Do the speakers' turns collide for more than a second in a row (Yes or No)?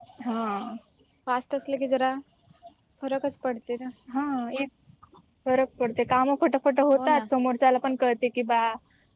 No